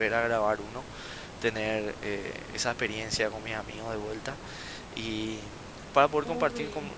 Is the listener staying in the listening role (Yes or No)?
Yes